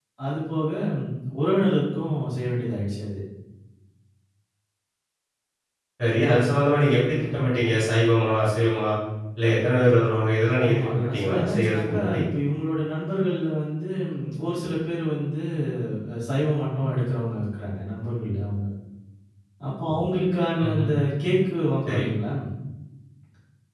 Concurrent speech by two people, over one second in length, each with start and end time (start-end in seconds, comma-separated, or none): 10.7-12.2